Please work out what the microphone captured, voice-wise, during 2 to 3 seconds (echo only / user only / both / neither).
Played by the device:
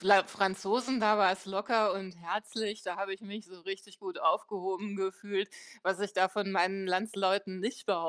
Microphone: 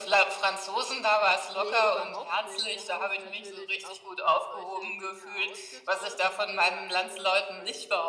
both